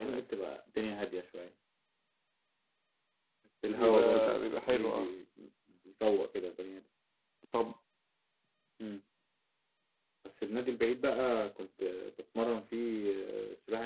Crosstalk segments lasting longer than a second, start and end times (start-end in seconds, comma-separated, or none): 3.7-5.1